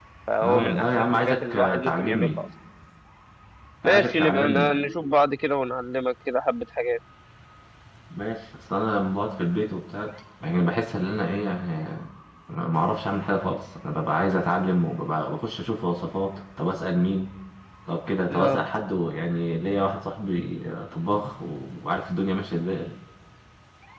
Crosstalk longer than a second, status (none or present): present